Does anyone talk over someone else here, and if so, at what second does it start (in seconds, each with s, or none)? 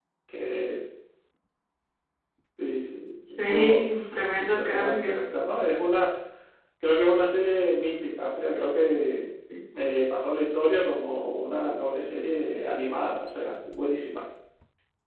3.3 s